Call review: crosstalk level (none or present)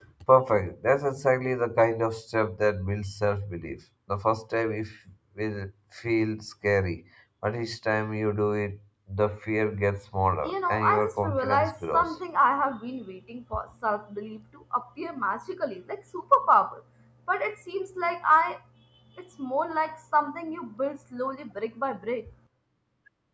present